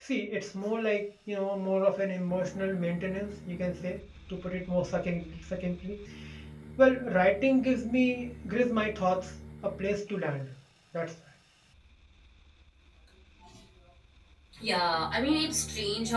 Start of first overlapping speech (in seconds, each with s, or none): none